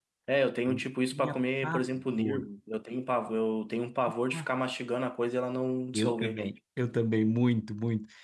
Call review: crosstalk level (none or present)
present